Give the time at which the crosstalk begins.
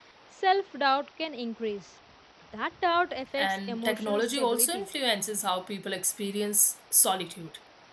3 s

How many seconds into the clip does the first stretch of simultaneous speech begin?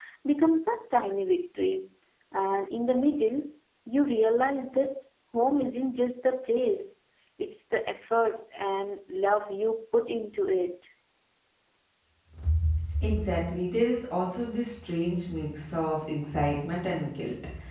none

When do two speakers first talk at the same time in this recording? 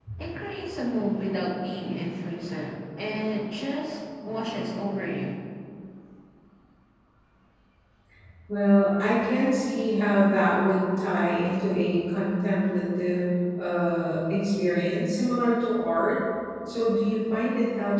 none

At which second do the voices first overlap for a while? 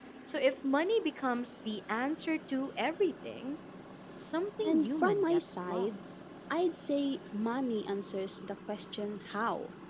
5 s

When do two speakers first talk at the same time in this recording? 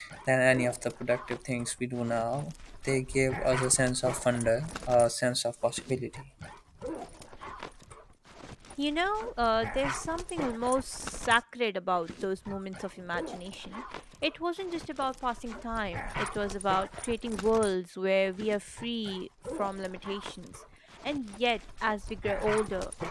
none

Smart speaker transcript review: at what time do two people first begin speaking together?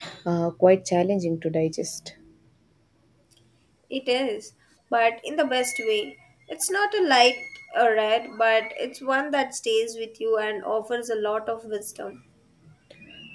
none

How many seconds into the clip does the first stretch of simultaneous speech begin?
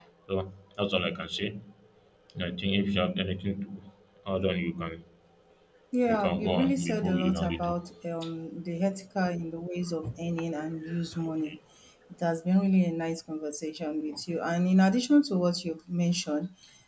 6 s

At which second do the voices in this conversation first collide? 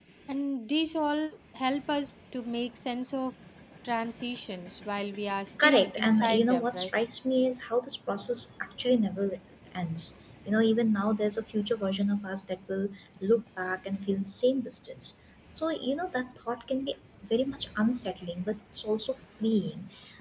6 s

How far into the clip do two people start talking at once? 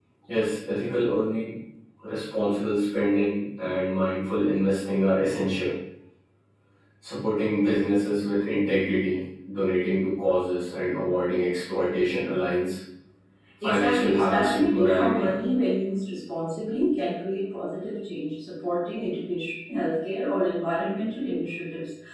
14 s

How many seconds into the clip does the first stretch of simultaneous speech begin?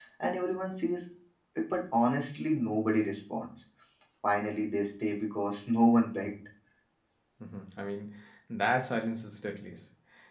none

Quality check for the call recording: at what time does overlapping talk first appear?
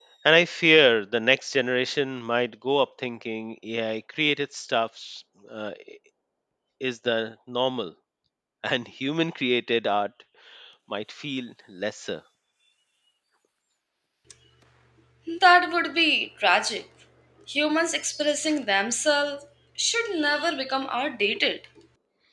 none

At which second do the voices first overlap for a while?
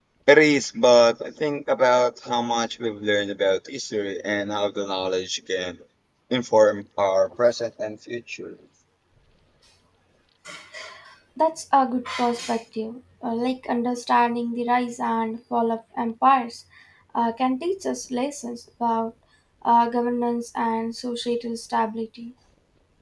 none

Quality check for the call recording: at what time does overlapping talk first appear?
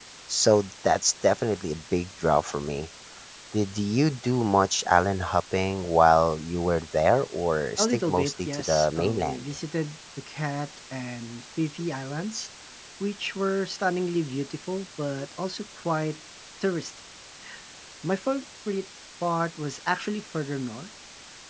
8 s

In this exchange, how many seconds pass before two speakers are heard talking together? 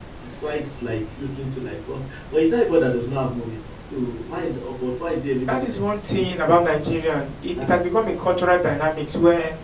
5 s

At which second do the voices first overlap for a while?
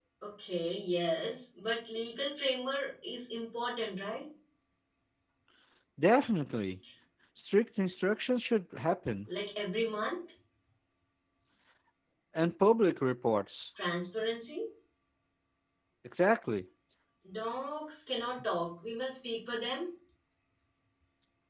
none

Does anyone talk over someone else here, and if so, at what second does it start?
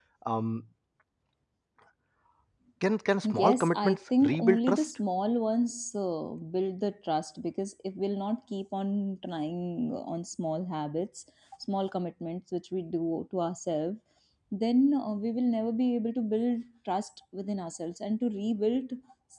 3 s

